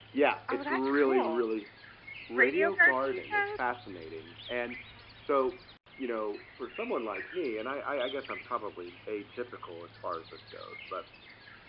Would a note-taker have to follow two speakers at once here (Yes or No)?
Yes